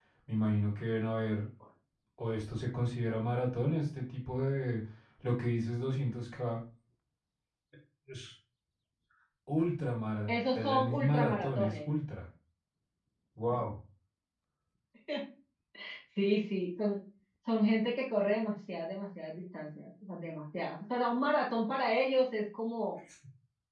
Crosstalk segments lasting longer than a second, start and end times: 10.7-11.9

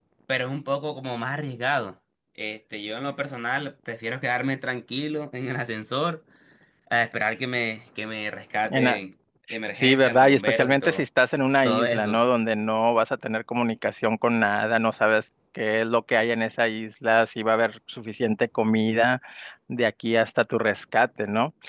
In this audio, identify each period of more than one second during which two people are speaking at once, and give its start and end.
9.7-11.0

